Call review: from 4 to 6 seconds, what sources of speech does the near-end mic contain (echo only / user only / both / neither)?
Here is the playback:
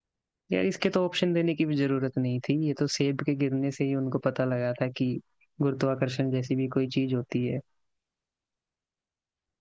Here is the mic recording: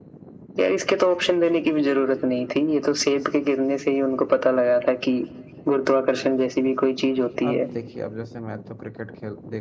echo only